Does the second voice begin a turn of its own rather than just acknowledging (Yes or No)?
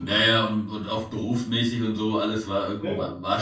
No